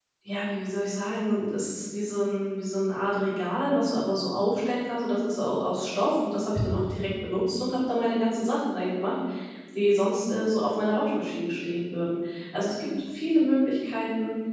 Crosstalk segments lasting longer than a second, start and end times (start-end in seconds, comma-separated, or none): none